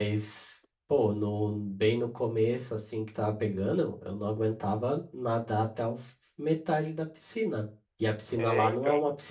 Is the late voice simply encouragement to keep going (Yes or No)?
Yes